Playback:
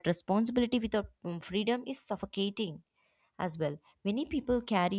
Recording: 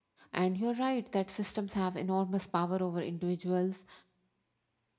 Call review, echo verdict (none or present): none